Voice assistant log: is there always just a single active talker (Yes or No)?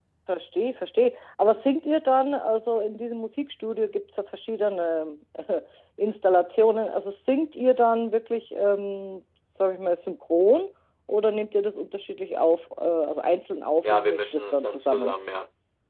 No